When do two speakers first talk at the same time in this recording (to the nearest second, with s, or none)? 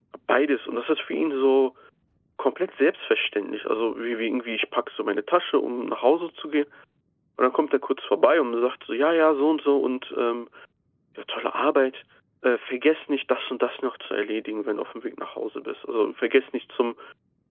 none